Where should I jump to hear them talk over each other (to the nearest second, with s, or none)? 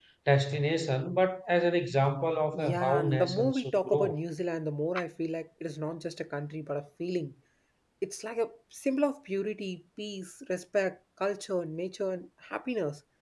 3 s